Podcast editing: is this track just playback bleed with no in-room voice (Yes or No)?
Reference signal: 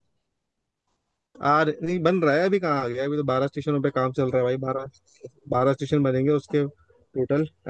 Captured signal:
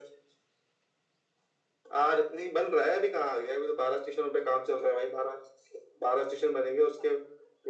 Yes